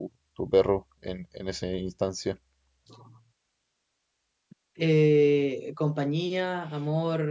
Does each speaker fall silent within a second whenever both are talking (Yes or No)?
Yes